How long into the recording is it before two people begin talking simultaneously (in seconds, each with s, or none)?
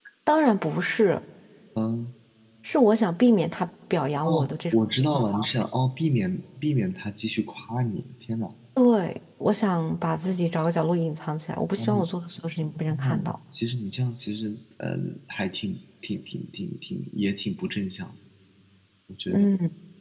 4.2 s